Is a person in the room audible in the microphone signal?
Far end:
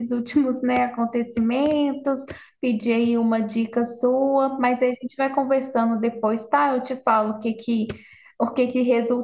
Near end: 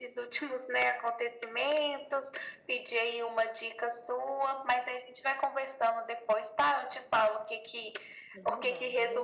Yes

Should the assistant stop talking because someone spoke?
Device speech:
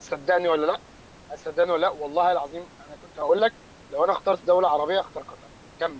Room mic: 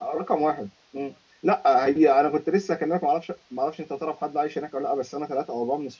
Yes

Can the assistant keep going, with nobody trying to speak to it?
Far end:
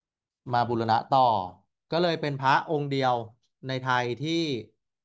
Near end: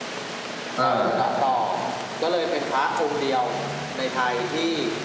No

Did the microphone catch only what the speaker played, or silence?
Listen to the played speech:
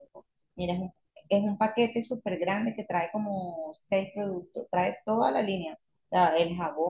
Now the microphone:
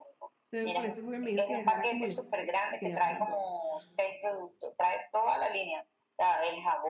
No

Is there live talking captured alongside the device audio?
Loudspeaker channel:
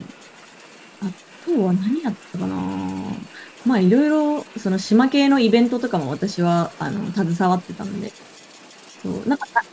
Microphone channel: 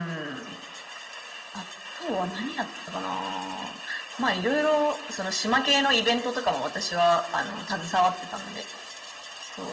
No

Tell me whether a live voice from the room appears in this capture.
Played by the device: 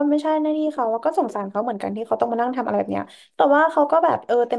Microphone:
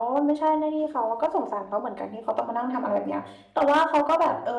No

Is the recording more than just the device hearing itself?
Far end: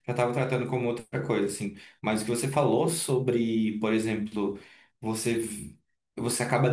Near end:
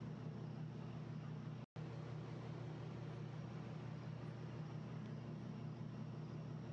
No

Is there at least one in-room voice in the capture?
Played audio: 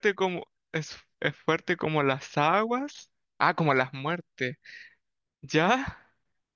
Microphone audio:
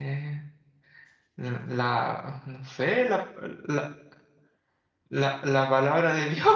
Yes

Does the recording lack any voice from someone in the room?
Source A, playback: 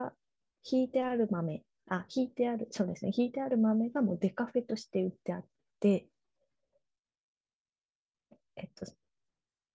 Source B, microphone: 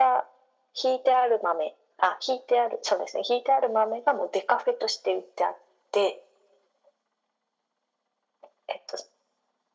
Yes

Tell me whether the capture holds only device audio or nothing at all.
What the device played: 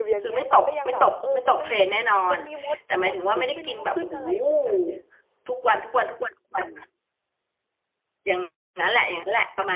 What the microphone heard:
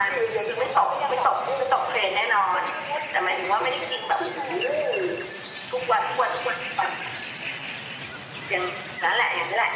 Yes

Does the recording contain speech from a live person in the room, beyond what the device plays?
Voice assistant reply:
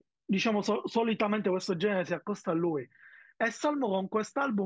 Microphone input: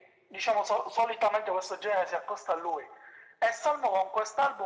No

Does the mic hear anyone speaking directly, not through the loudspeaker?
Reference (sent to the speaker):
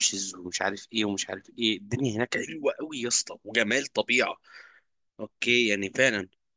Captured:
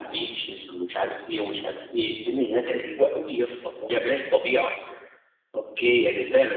No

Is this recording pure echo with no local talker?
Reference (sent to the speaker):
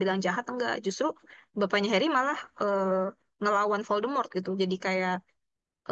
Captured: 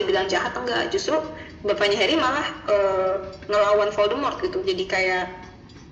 Yes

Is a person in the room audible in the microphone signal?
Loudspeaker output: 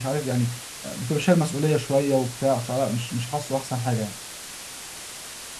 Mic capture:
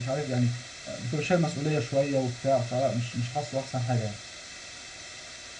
No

